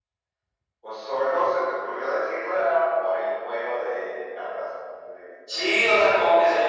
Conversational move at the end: taking over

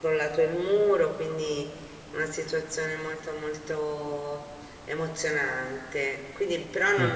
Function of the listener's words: listening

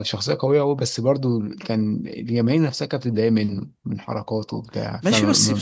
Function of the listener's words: taking over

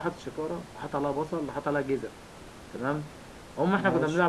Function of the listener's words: listening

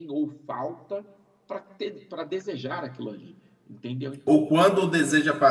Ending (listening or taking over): taking over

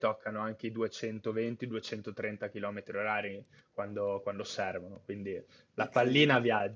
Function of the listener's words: listening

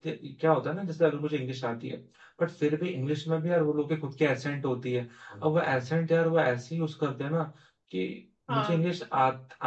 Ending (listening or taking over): listening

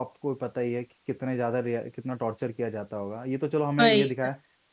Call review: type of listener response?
listening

